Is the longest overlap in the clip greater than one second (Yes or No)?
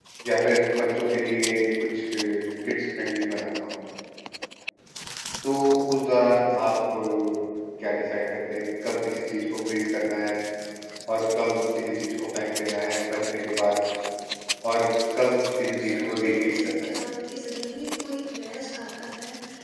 Yes